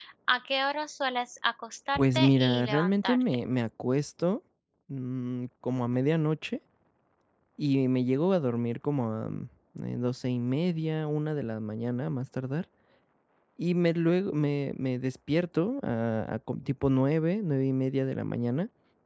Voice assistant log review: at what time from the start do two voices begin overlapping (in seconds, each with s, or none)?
1.9 s